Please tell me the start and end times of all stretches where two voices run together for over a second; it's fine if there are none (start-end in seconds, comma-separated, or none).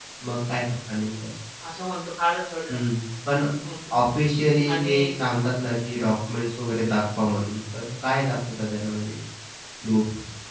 none